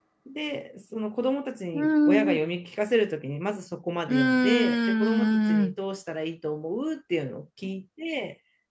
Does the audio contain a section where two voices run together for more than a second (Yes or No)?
Yes